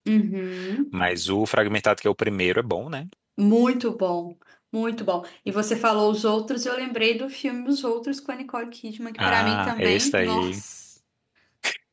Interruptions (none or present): present